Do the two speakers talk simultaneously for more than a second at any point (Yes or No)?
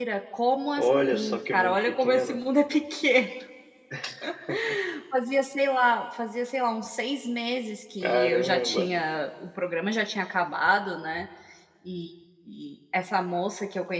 Yes